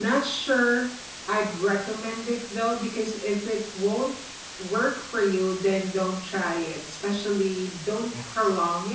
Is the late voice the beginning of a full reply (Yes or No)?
No